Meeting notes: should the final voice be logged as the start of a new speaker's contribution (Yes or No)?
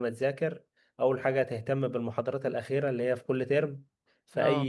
No